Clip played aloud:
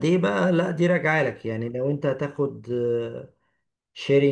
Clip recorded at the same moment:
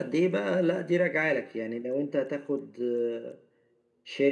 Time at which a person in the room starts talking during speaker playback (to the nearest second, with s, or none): none